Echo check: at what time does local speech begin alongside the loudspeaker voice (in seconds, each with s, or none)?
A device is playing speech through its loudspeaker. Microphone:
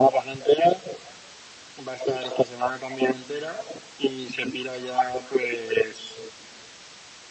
none